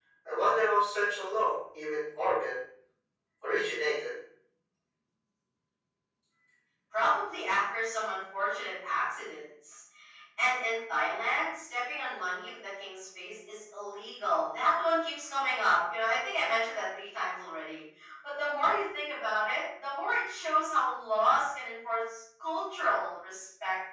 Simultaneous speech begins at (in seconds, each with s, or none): none